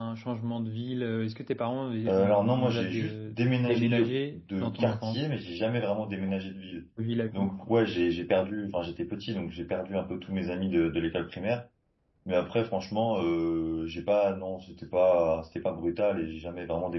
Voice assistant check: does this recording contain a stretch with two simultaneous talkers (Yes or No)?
Yes